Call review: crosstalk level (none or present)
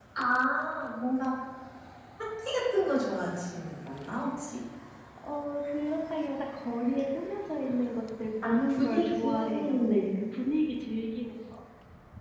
present